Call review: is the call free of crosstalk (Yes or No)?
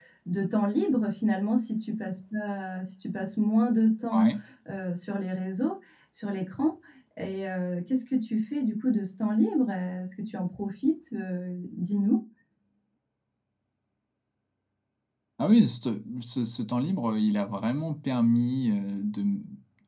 Yes